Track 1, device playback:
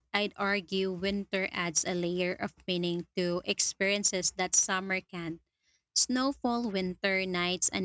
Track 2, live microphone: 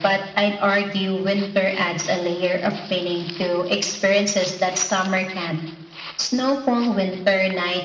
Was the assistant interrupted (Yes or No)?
No